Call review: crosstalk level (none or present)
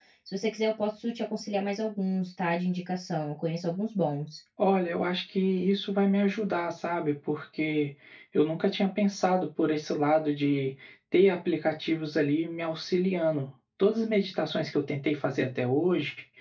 none